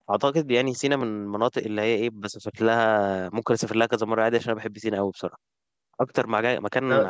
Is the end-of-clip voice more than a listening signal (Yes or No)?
No